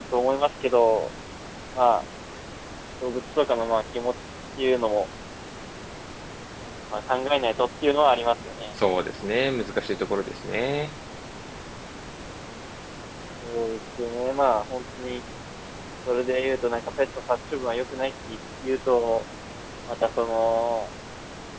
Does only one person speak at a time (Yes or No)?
Yes